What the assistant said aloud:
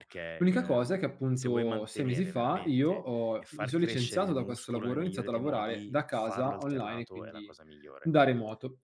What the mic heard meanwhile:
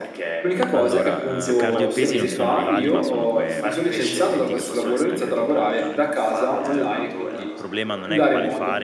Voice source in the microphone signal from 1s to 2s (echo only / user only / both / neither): both